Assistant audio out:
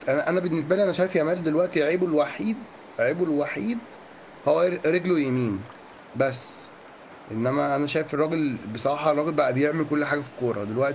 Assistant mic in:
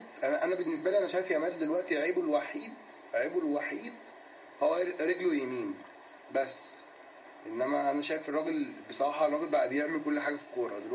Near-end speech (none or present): none